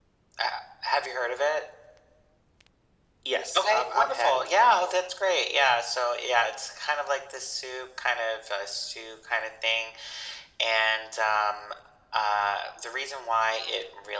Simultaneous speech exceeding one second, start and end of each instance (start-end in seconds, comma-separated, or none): 3.6-5.0